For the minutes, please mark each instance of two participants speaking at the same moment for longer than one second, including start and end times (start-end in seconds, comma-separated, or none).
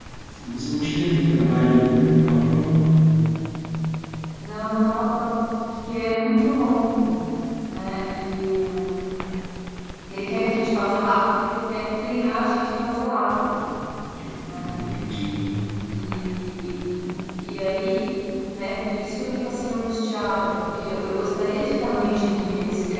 none